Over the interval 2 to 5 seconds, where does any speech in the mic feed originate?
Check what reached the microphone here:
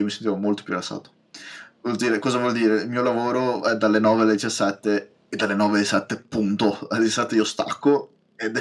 echo only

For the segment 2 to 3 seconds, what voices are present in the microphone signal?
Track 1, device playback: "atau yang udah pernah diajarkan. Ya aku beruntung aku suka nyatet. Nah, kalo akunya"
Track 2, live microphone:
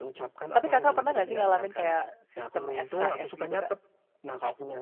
both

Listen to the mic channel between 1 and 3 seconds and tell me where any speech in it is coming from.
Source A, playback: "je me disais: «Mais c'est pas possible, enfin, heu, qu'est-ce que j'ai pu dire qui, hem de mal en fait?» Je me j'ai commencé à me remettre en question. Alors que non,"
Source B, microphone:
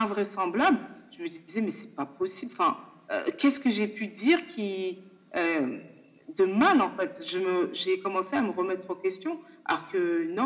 echo only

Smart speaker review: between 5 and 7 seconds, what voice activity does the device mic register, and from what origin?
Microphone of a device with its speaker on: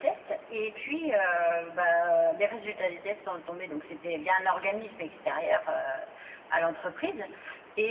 echo only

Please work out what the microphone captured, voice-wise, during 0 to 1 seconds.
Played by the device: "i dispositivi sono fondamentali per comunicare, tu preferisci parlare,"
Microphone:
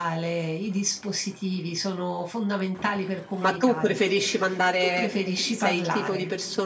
echo only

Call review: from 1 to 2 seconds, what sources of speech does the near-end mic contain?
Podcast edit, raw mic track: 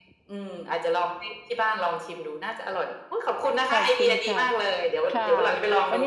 echo only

